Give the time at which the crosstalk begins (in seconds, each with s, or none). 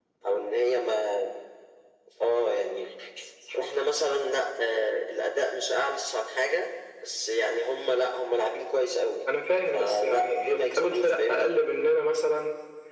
9.7 s